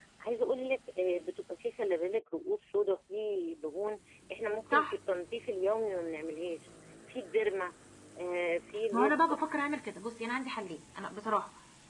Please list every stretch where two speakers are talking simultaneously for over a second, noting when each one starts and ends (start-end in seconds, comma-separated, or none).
none